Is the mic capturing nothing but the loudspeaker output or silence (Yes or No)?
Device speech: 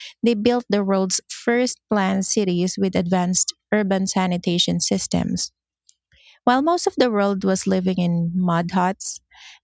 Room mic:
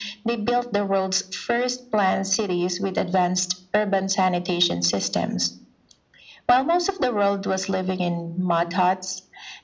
Yes